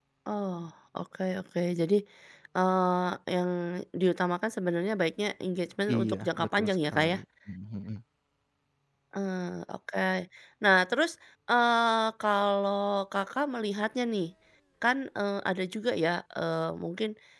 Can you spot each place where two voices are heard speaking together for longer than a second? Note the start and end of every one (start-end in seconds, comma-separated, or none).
6.0-7.2